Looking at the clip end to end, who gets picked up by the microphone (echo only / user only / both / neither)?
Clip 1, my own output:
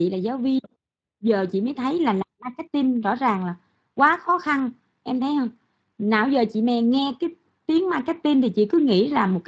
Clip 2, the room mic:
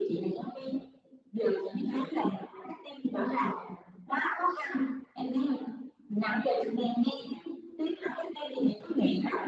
echo only